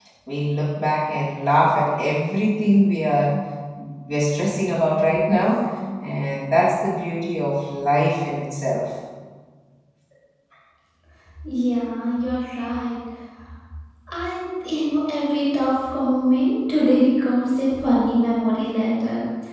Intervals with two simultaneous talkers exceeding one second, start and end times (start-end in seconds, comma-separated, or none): none